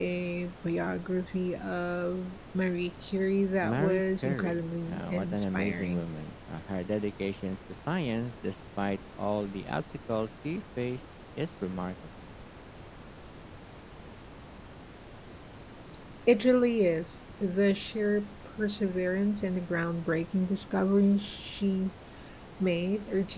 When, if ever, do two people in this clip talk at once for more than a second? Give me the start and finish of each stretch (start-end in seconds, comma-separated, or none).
3.6-6.0